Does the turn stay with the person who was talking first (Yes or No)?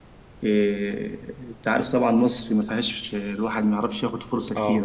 Yes